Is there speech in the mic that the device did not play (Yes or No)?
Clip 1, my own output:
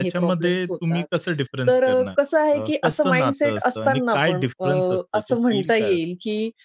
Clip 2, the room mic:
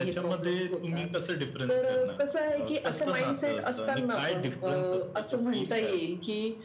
No